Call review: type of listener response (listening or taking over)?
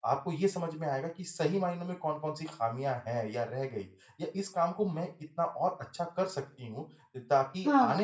listening